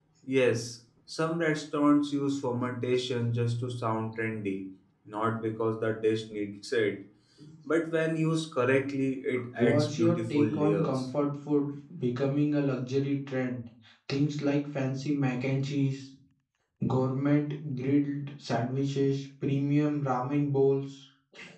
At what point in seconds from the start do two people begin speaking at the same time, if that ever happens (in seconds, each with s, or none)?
9.4 s